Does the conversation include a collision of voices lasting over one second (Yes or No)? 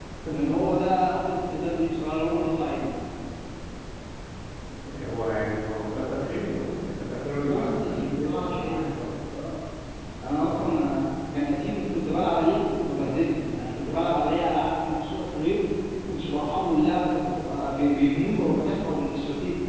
Yes